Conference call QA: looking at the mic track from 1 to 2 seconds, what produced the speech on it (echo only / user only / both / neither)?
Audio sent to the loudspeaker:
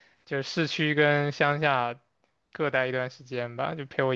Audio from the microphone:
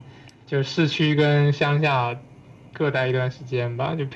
echo only